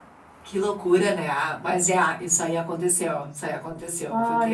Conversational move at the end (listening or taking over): taking over